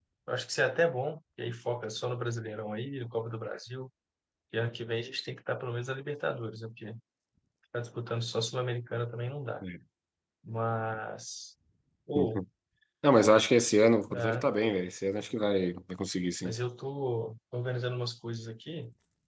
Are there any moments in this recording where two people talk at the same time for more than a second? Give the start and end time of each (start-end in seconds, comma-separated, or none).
none